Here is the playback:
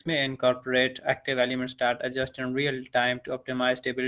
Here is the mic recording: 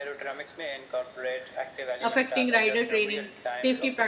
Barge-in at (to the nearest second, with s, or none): 2 s